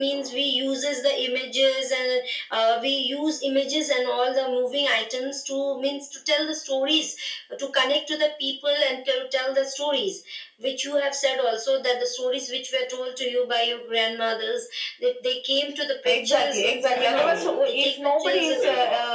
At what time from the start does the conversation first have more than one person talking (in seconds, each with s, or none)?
16.0 s